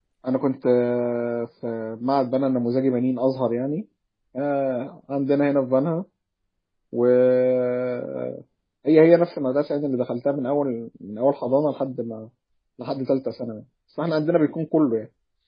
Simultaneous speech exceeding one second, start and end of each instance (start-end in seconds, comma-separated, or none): none